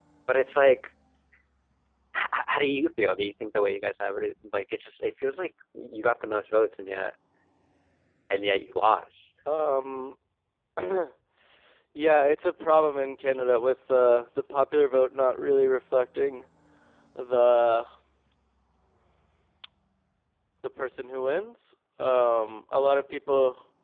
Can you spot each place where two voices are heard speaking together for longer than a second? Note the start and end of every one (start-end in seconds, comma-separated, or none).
none